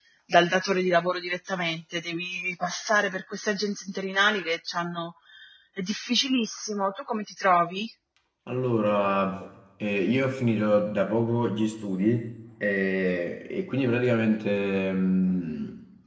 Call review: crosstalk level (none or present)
none